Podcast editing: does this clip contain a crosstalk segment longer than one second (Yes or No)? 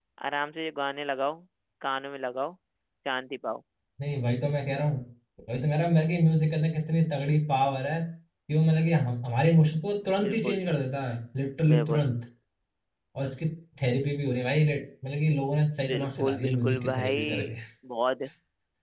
Yes